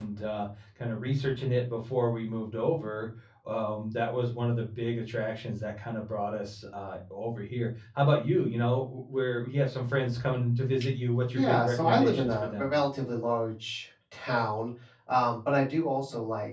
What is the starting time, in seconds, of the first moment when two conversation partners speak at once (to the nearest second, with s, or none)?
11 s